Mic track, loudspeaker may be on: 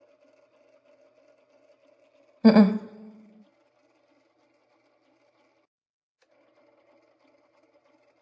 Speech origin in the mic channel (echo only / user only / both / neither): user only